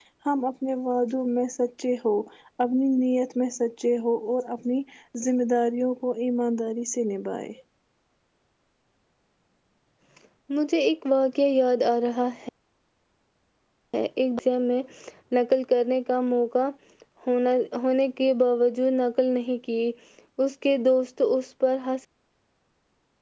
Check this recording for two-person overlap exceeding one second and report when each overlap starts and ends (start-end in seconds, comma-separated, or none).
none